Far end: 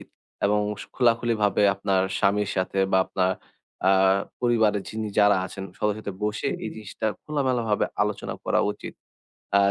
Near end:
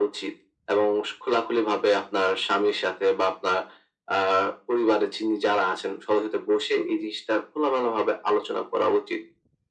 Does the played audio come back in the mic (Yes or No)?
Yes